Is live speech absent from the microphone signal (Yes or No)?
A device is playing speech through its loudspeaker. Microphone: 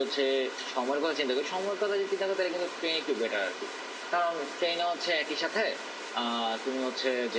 Yes